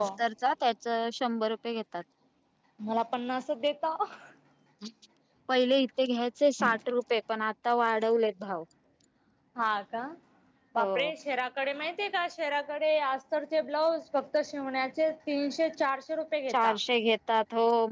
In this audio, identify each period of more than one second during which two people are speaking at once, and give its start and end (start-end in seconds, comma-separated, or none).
none